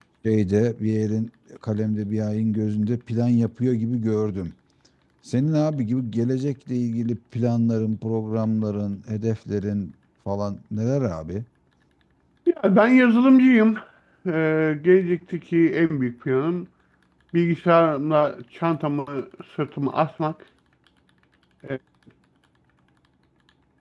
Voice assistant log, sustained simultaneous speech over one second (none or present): none